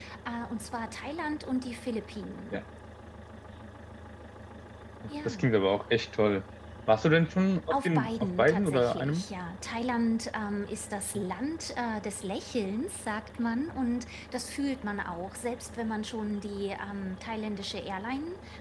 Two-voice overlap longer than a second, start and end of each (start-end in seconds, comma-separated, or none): 7.7-9.2